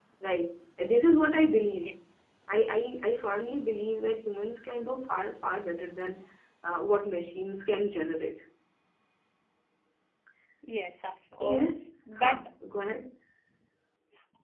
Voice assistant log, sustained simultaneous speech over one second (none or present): none